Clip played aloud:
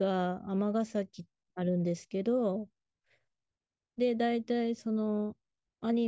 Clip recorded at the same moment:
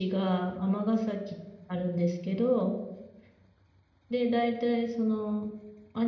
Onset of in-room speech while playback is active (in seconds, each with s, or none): none